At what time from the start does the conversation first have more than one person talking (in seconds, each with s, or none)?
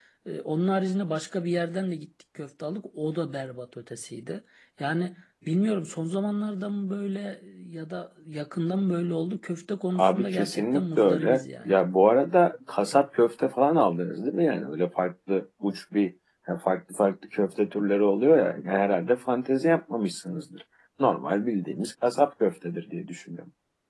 9.9 s